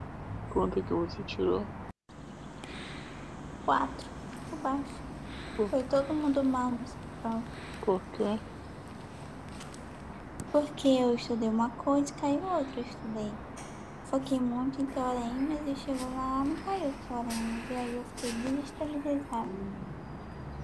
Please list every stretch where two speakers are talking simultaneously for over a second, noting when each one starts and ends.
none

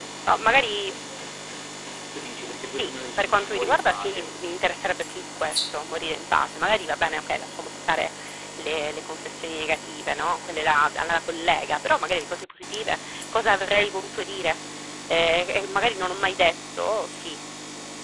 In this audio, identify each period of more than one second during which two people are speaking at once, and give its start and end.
2.6-4.3

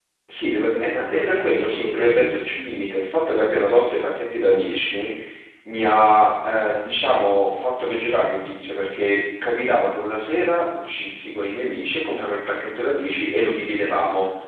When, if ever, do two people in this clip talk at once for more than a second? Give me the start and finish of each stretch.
1.0-2.4

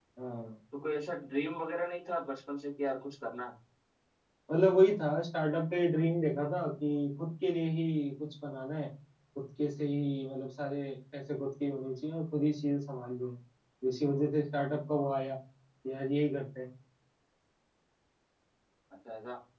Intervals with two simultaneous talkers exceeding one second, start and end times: none

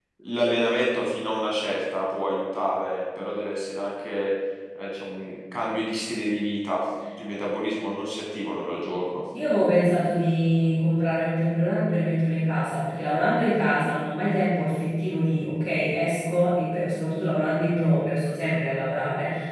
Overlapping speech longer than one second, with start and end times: none

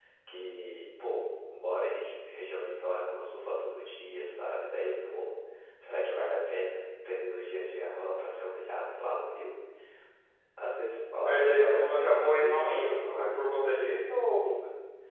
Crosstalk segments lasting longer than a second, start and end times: 11.2-13.6

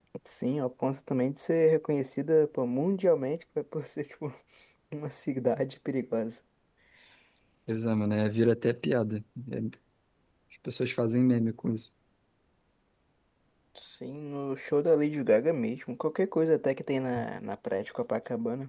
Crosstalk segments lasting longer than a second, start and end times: none

